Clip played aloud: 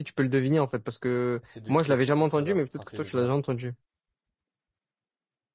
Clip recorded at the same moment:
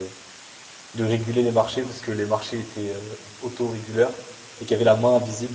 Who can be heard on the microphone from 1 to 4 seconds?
user only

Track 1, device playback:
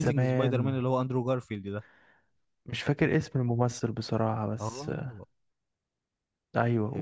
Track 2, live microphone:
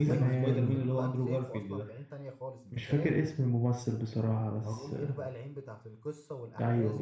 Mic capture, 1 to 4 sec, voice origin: both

